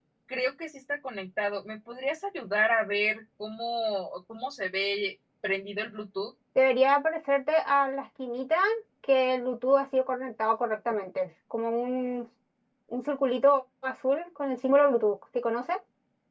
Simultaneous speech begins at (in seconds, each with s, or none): none